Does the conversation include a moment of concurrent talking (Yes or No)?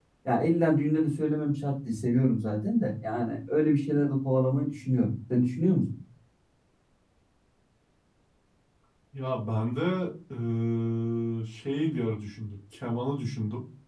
No